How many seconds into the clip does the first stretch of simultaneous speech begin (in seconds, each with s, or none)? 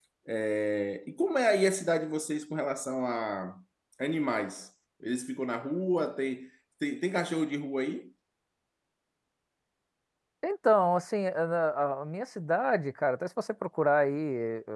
none